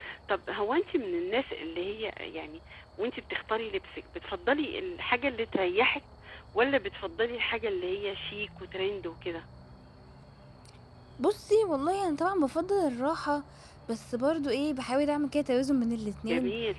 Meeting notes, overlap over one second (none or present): none